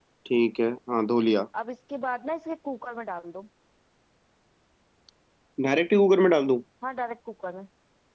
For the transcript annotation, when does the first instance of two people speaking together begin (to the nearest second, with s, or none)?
none